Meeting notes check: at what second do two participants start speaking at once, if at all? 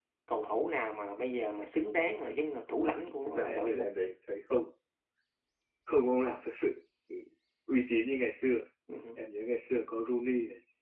3 s

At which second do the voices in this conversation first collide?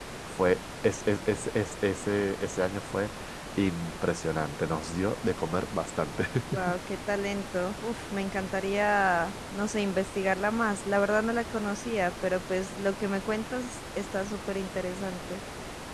none

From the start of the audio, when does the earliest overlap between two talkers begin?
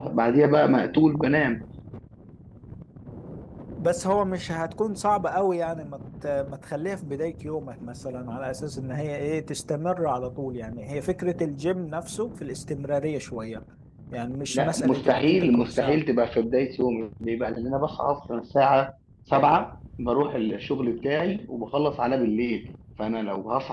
14 s

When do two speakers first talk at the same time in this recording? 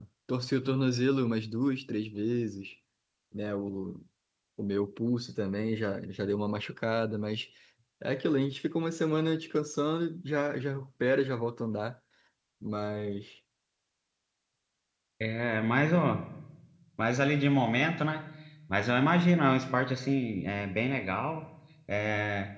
none

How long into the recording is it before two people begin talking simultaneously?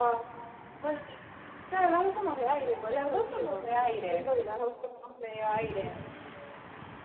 3 s

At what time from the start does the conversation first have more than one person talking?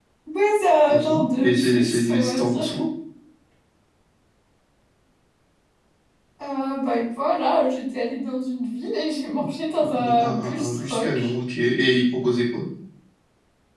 1 s

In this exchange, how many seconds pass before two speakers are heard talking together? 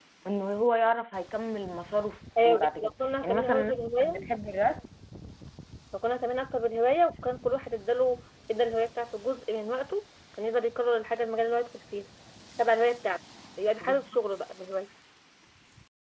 2 s

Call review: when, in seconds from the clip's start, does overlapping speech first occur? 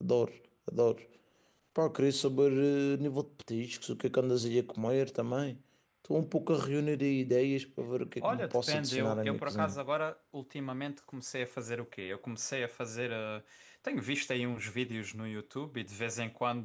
8 s

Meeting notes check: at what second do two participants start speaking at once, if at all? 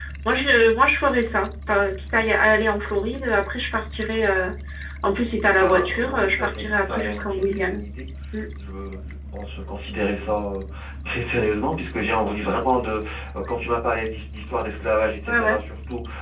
6 s

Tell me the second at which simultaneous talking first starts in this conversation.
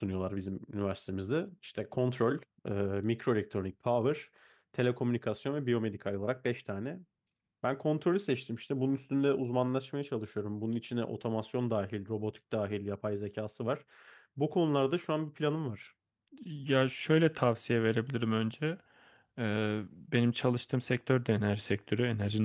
none

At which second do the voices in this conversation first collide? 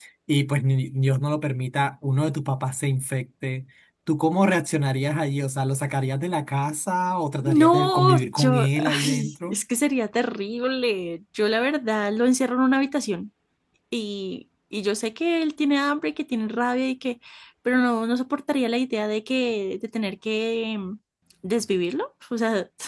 7 s

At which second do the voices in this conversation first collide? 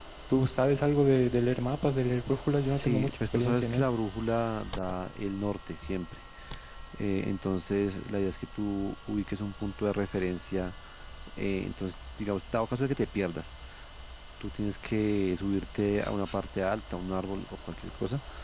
3 s

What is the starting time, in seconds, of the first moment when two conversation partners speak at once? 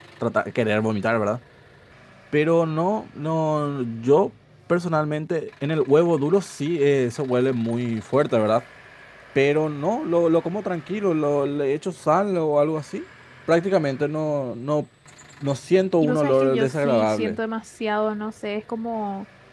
16 s

